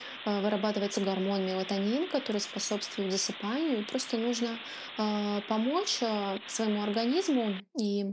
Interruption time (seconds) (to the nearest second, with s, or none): none